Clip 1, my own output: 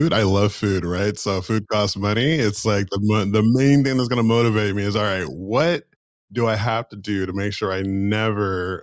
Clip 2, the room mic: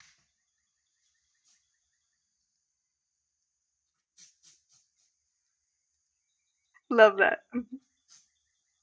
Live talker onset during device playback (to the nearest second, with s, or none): 7 s